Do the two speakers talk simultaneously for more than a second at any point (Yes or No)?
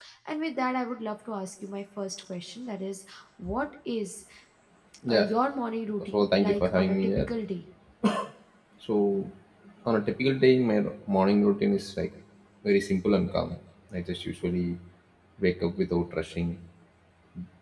Yes